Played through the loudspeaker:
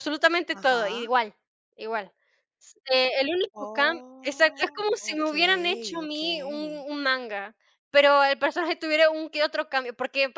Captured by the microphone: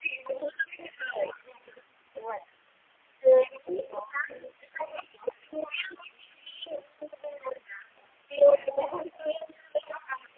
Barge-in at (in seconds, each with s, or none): 8.4 s